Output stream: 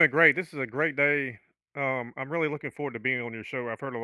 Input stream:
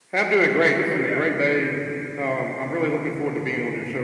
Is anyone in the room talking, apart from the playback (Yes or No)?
Yes